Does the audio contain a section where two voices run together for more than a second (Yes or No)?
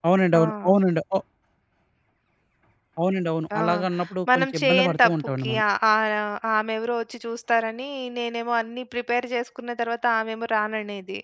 Yes